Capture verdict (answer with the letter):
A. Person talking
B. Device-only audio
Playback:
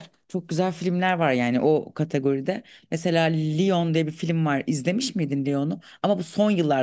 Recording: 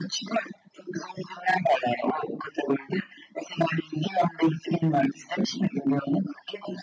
B